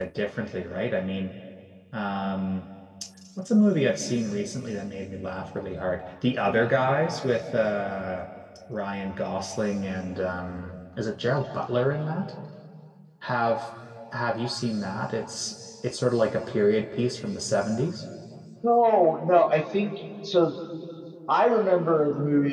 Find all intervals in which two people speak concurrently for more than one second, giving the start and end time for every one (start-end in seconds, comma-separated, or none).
none